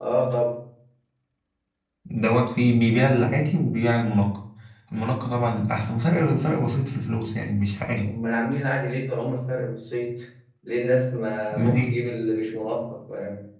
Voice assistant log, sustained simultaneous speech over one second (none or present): none